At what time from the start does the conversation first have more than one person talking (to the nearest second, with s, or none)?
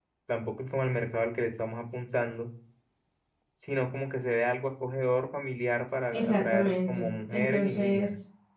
6 s